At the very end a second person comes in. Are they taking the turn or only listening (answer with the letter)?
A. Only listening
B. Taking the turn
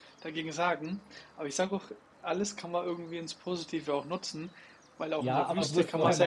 B